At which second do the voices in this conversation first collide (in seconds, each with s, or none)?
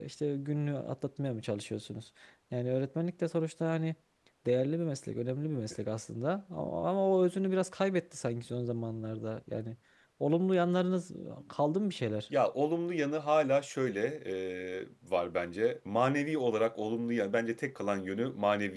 none